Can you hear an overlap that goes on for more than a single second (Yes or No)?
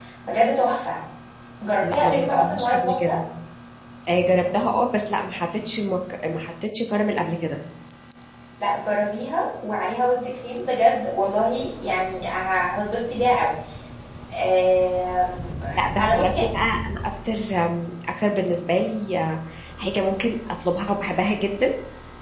Yes